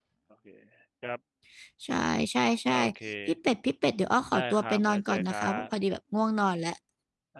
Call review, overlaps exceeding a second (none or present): present